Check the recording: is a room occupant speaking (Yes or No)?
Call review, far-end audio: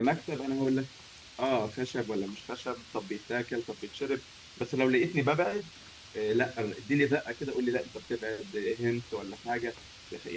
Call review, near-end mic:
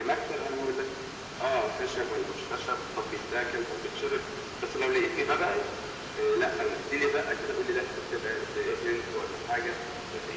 No